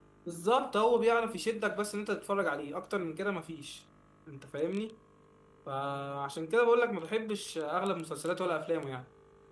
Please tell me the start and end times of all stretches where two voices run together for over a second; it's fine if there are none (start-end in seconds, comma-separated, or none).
none